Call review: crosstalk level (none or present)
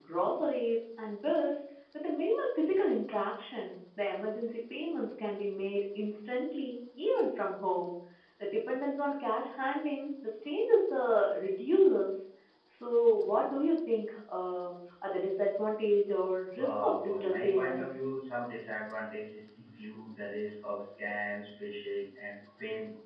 present